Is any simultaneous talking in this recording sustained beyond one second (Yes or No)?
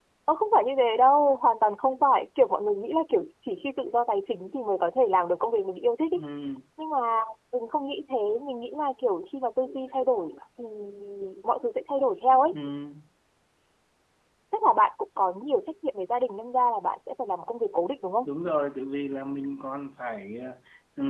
No